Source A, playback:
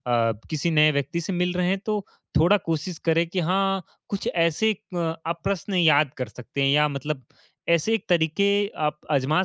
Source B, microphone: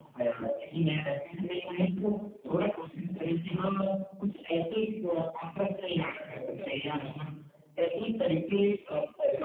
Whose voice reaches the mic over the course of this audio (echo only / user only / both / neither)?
both